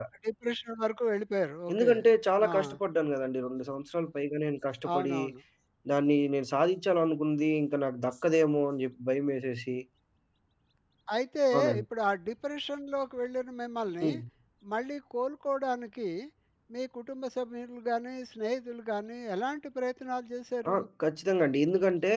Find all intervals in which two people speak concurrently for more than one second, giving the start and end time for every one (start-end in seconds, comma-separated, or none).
none